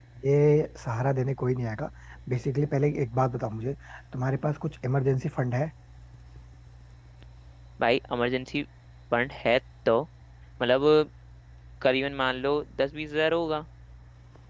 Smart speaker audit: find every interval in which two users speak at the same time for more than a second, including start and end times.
none

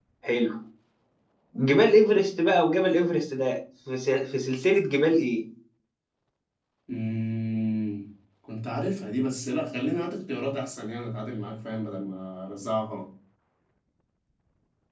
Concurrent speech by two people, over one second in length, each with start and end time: none

